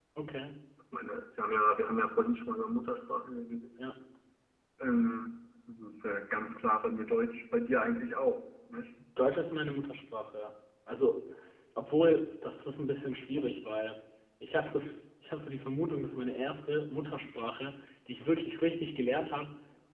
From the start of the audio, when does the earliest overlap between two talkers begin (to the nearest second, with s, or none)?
none